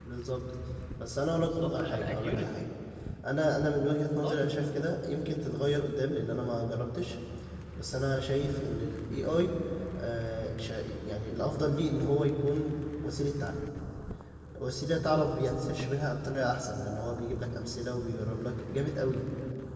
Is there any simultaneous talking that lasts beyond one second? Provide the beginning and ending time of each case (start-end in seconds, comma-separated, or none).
1.4-2.6